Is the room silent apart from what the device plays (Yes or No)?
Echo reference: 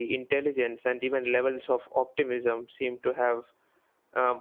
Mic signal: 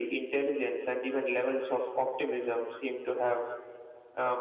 Yes